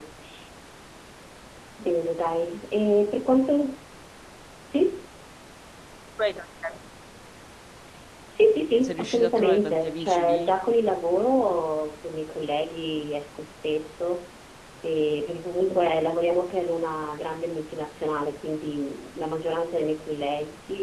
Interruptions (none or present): present